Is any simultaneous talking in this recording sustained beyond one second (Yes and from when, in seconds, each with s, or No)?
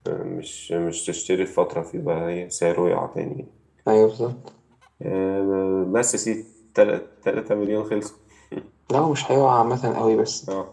No